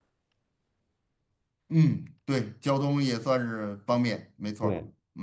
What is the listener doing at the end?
taking over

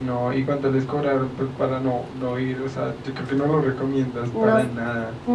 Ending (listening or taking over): taking over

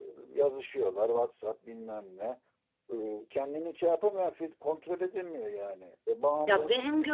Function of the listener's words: taking over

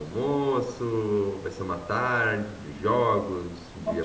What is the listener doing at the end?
taking over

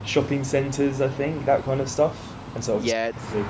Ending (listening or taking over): taking over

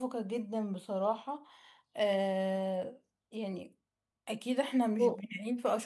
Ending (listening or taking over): listening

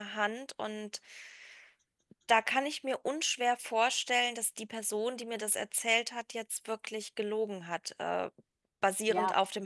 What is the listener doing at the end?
listening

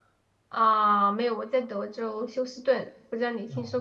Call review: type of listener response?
taking over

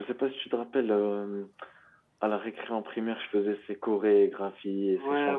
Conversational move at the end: taking over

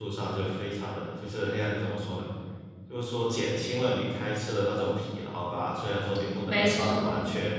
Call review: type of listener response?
listening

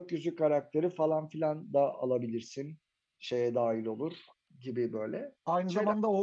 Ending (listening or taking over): taking over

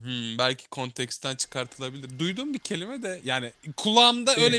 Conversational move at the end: listening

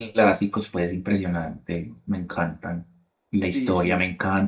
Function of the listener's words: listening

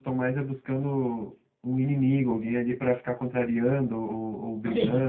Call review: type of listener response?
taking over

